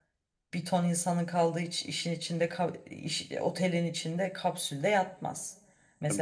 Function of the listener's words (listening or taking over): listening